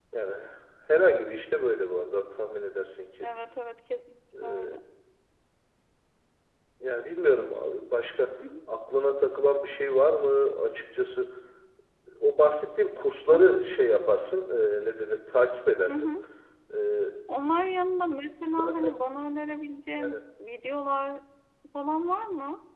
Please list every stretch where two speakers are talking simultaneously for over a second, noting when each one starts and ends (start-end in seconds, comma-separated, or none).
none